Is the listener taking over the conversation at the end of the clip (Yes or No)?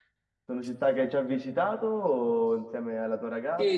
Yes